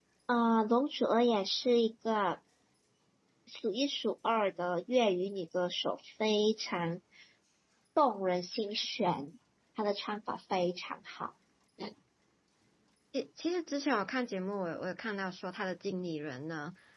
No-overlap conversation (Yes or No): Yes